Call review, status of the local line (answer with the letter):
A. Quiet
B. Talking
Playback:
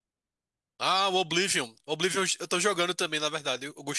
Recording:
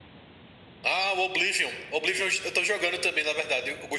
A